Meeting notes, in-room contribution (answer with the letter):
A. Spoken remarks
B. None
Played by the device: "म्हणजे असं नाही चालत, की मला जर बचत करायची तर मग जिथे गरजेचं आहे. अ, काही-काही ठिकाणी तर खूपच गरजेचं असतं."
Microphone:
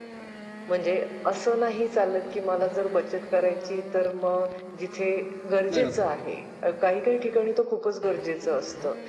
A